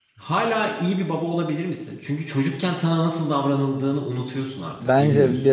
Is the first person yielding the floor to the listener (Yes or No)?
Yes